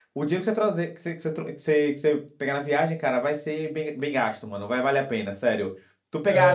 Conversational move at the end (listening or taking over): listening